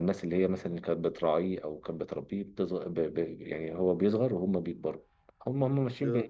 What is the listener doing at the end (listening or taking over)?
listening